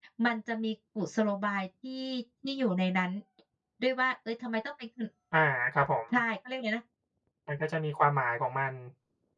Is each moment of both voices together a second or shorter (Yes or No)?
Yes